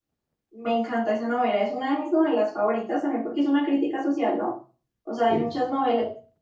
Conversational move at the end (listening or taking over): listening